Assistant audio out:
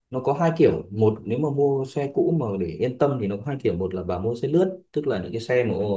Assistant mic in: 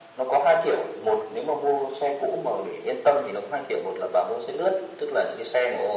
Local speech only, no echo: none

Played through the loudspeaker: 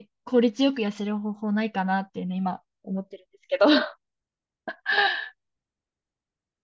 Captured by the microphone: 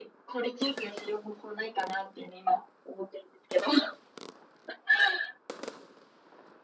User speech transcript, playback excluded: none

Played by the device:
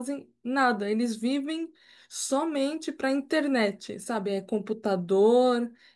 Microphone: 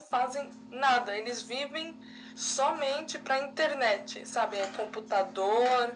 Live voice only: none

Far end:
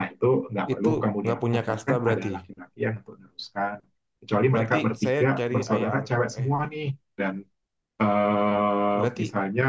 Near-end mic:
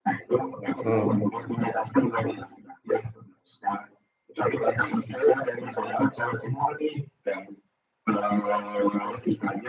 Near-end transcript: hmm,

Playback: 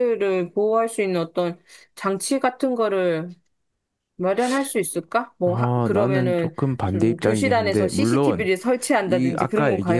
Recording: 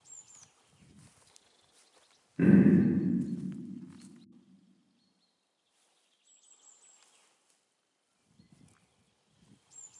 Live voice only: 음,

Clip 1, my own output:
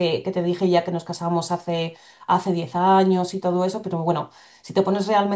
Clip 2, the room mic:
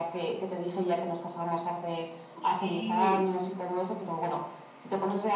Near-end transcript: Sí,

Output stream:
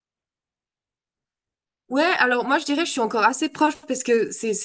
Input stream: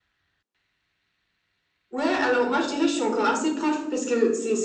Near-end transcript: none

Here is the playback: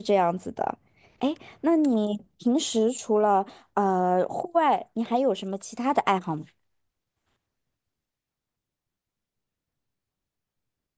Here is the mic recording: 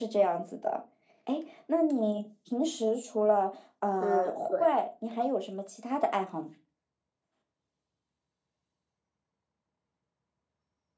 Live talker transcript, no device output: 嗯，对。

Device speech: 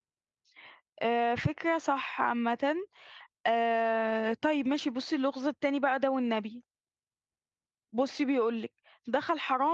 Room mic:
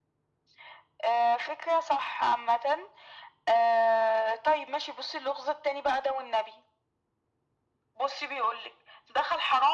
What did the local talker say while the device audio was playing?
none

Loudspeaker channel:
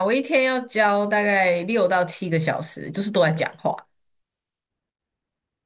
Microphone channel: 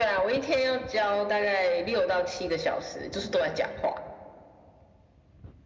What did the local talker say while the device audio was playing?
none

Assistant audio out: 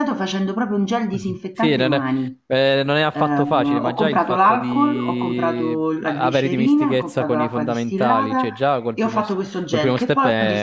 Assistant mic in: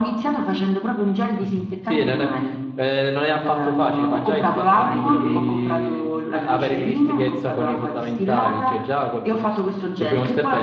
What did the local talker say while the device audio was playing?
sai quello che,

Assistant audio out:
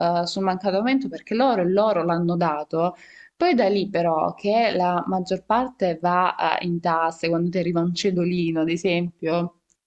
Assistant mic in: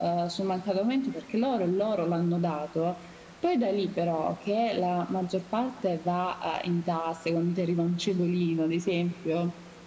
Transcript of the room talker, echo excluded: none

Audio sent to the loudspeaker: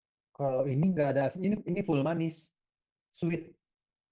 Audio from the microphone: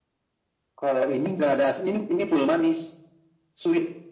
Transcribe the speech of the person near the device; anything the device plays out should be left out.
none

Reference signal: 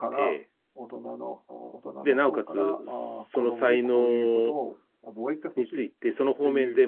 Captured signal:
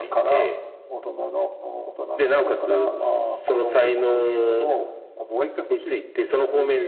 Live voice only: none

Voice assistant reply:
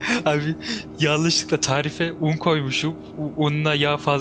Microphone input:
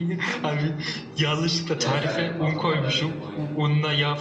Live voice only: Yani şey aynen parmak kadar dedim oydu.

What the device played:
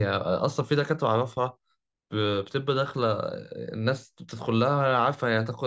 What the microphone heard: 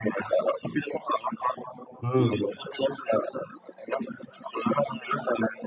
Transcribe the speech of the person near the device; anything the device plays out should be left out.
مم.

